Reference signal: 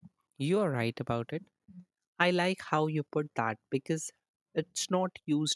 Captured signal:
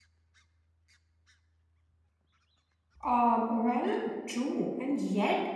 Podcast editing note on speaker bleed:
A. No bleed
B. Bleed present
A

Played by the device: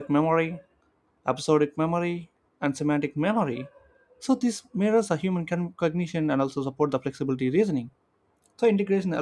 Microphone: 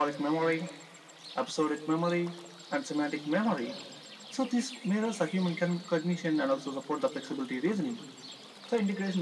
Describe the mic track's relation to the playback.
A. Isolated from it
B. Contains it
B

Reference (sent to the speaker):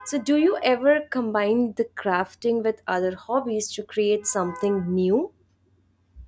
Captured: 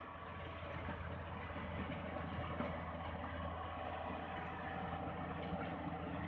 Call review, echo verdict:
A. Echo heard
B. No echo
B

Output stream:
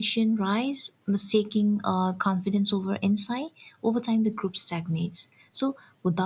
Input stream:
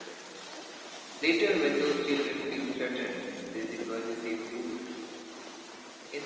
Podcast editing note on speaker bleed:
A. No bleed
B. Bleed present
A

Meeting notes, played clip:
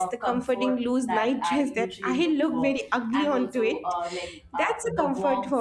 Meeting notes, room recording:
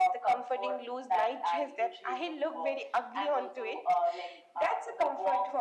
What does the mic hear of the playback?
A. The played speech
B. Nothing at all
A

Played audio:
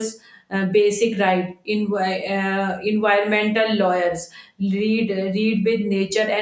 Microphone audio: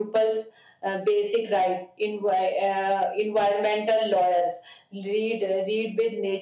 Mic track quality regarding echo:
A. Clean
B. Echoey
B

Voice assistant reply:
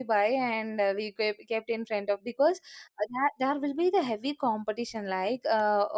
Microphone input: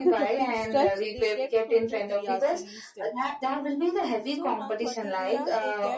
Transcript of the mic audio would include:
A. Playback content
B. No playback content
A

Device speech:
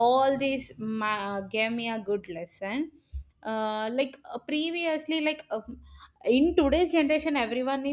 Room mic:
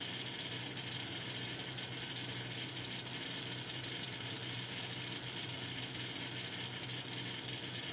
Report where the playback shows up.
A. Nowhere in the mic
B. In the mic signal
A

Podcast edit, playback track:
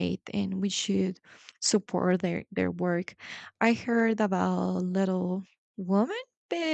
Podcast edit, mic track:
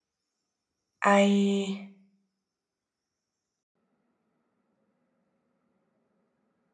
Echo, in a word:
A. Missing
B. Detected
A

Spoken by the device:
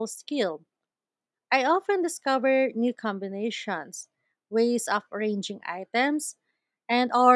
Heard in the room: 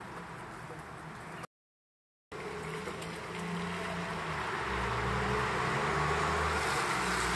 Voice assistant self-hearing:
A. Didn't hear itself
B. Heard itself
A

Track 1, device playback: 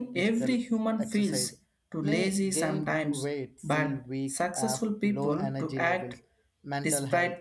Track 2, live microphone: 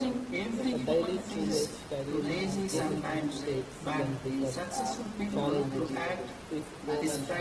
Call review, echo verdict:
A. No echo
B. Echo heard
B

